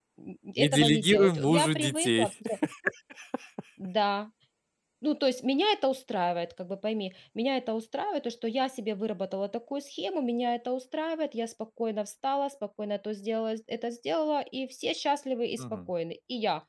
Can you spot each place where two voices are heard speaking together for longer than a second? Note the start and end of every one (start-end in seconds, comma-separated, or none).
0.6-2.3